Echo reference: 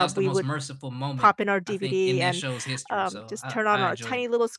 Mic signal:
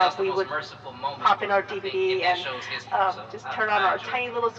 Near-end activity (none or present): none